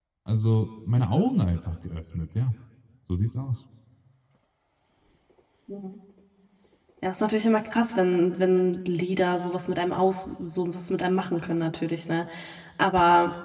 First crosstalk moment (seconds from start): none

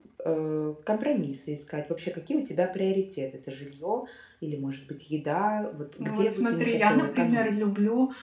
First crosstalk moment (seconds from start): 6.0 s

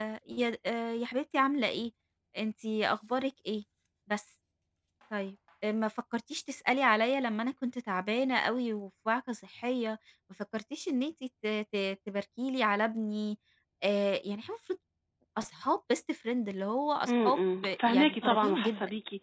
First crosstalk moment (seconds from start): 17.1 s

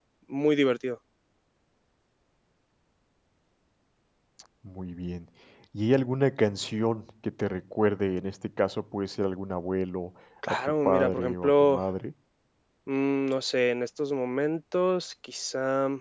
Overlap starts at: 10.4 s

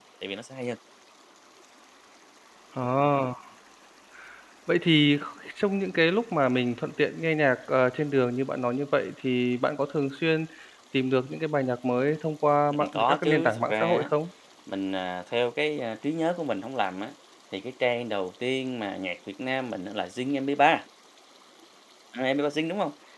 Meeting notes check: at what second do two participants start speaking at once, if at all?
12.7 s

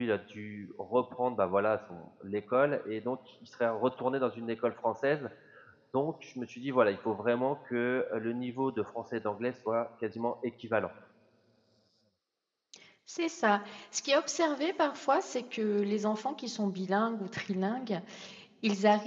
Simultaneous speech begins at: none

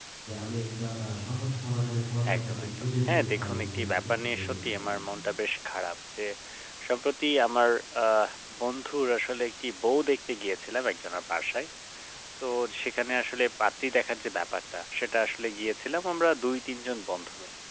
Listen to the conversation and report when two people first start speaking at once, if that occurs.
2.2 s

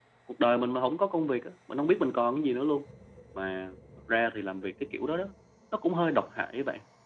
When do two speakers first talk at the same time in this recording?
none

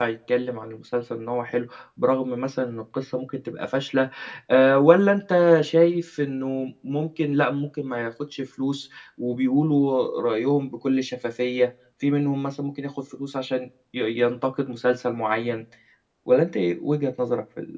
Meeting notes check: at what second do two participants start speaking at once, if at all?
none

